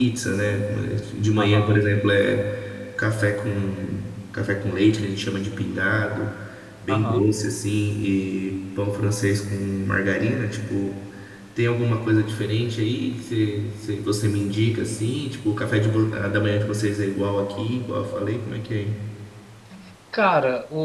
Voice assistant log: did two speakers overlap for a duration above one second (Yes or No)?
No